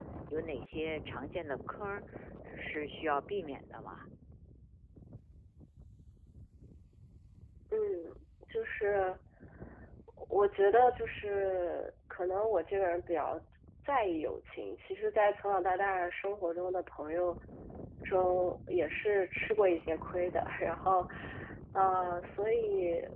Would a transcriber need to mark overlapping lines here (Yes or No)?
No